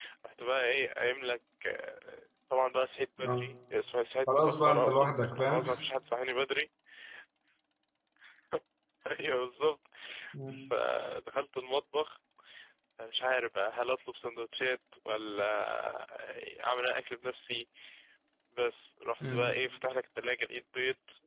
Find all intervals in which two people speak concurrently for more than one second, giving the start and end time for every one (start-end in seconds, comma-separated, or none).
4.3-5.6